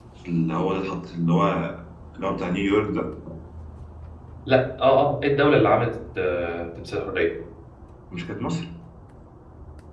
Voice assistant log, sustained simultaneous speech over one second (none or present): none